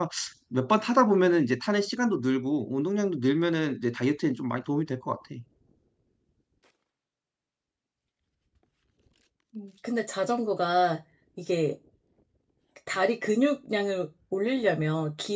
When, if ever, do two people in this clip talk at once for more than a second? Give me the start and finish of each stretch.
none

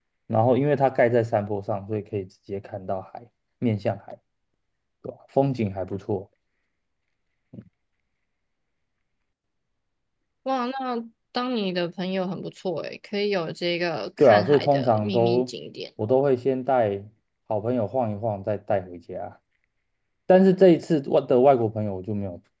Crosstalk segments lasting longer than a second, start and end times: 14.2-15.5

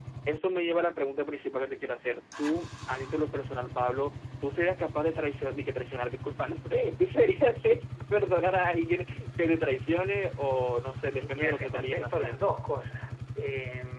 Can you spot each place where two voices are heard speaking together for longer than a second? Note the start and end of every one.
11.2-12.4

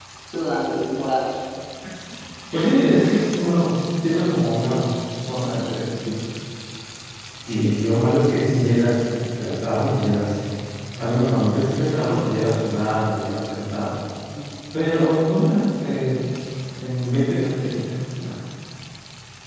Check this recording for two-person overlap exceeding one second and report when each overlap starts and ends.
none

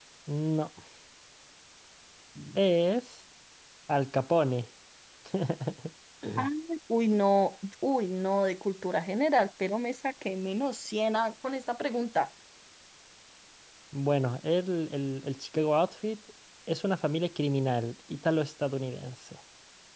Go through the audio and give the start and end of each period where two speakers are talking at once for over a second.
none

